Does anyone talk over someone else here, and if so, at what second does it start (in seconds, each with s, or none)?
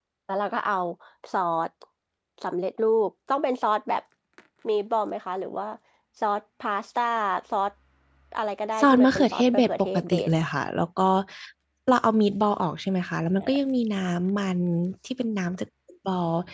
8.8 s